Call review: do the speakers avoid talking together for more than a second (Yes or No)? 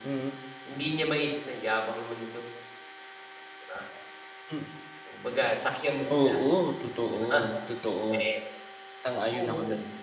Yes